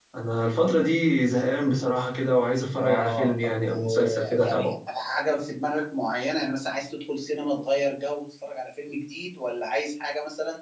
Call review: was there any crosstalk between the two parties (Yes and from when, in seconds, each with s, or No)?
Yes, from 2.8 s